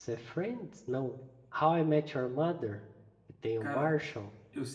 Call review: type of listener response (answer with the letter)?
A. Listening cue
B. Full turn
B